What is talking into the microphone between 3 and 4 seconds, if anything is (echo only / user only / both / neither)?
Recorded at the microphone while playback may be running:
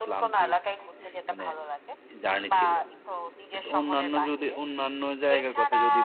both